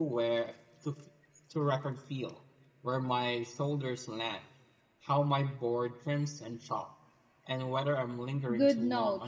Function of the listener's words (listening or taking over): taking over